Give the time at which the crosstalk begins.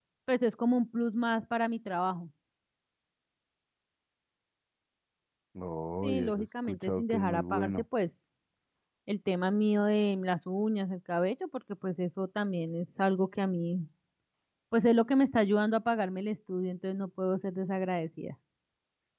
6.0 s

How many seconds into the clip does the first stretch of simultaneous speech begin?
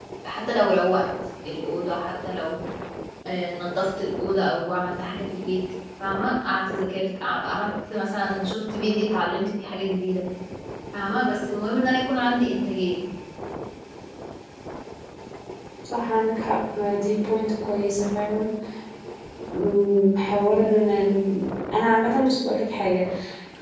none

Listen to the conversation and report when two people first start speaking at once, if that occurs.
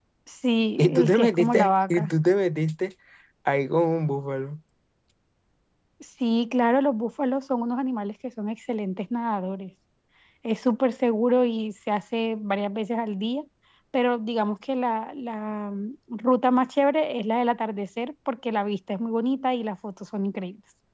0.8 s

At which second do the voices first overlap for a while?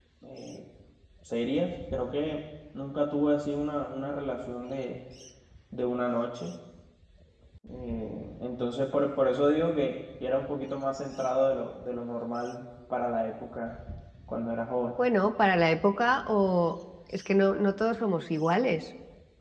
none

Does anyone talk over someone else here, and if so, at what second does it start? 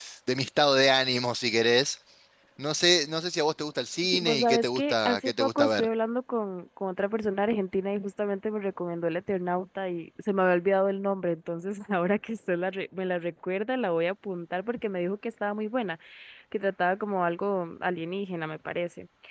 4.0 s

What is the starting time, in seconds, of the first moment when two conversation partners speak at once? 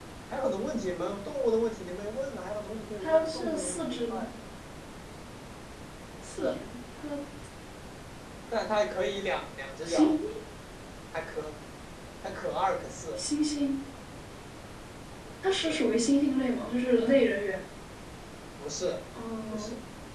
3.0 s

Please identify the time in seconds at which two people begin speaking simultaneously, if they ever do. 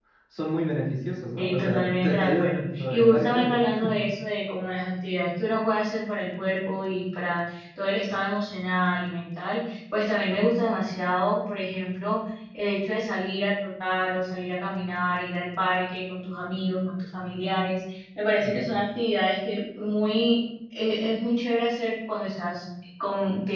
1.4 s

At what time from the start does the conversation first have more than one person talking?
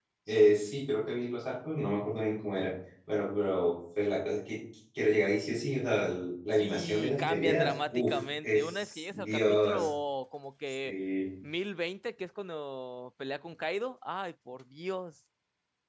6.5 s

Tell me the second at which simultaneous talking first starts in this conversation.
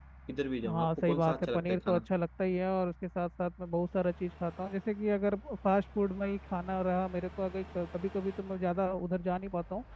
0.7 s

